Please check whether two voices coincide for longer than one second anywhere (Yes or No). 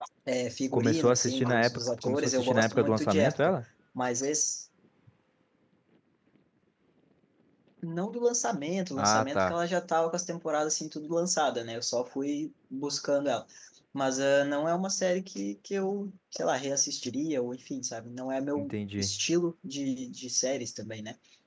Yes